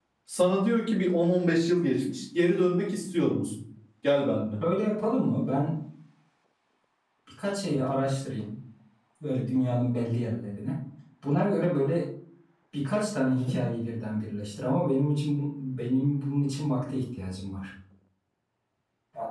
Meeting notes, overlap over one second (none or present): none